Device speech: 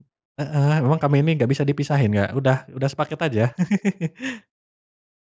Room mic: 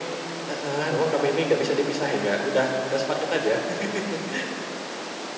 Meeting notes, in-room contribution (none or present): none